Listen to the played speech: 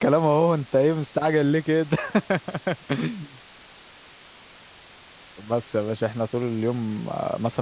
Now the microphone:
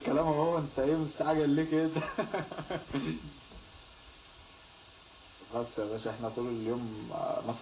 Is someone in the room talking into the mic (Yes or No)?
No